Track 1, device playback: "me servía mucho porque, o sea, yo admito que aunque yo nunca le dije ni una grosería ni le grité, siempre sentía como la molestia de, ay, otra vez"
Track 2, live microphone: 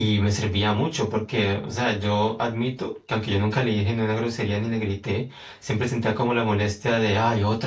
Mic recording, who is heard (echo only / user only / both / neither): echo only